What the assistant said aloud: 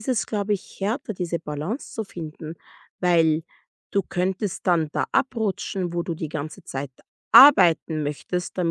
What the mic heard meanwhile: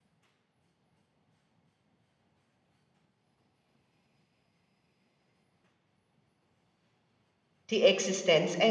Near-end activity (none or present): present